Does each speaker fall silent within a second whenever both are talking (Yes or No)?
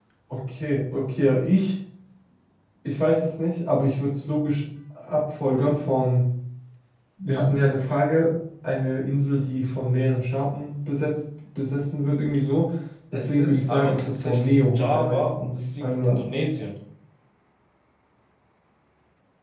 No